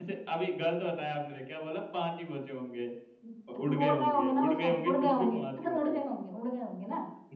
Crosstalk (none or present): present